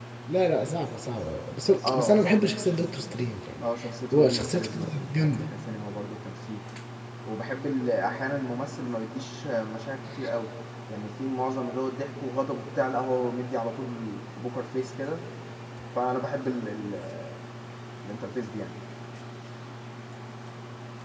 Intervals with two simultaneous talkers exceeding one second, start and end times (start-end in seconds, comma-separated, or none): 4.1-5.4